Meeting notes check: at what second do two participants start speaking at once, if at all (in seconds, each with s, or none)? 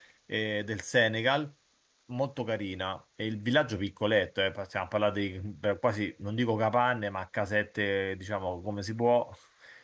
none